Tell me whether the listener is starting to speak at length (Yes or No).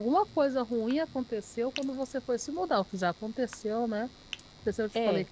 No